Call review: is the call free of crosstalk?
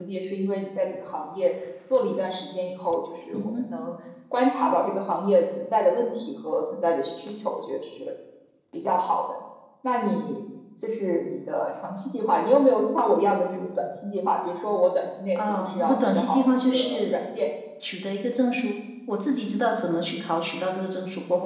No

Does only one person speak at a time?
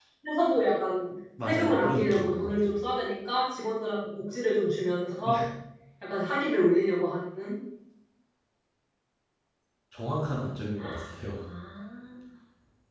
No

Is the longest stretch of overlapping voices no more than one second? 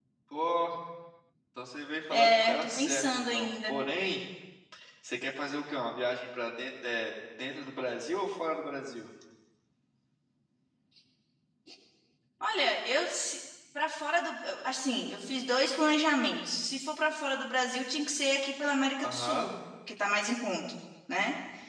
No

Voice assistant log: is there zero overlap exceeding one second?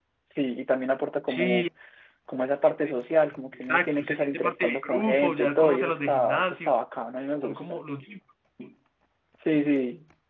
No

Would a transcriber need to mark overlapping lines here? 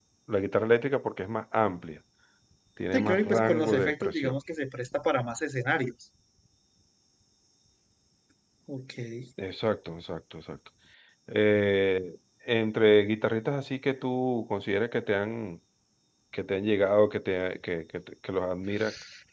Yes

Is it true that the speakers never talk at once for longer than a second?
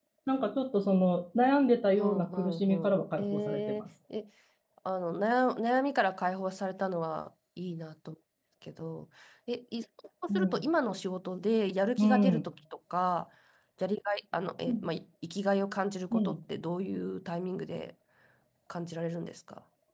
No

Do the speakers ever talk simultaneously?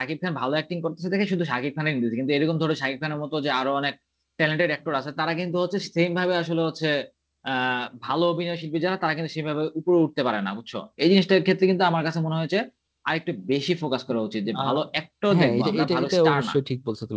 Yes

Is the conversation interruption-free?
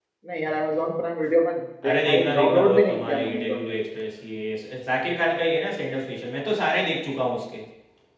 No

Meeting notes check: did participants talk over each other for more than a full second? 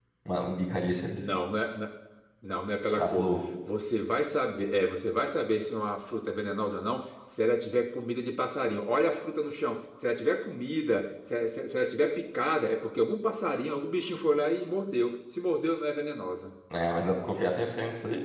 No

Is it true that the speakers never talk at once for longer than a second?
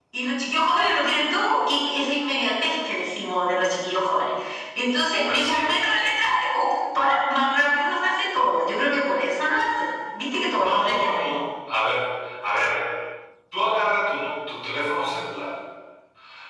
Yes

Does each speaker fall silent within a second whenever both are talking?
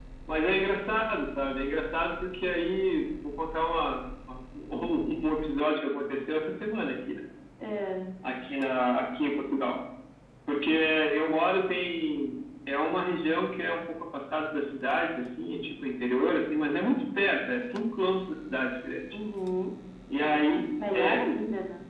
Yes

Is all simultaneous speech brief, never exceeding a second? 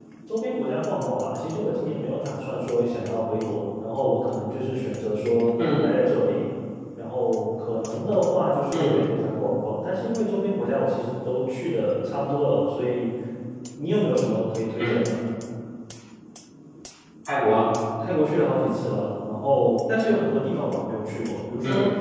Yes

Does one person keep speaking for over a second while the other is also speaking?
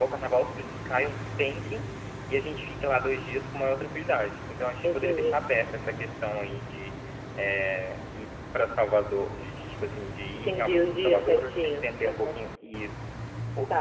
Yes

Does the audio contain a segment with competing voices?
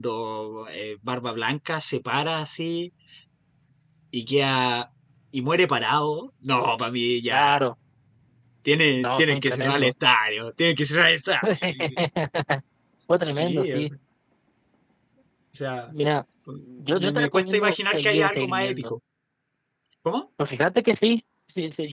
Yes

